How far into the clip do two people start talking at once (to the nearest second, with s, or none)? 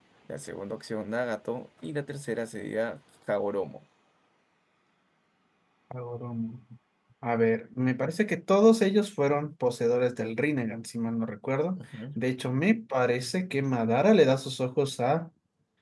none